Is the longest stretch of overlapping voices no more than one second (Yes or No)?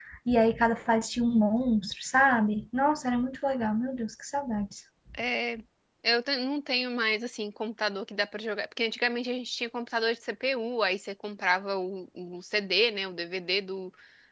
Yes